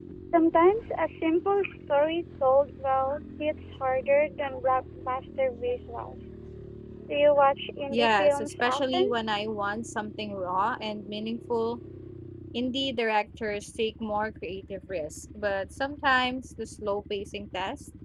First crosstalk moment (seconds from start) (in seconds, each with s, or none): 7.9 s